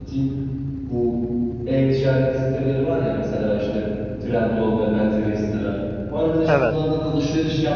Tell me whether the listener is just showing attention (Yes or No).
Yes